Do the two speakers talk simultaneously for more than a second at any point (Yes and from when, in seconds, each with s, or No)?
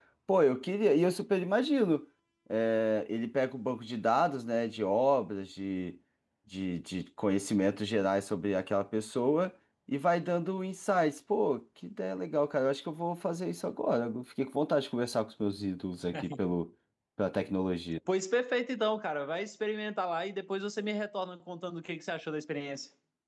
No